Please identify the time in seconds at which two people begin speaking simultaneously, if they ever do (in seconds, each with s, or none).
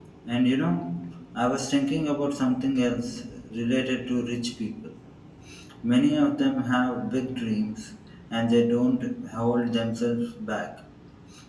none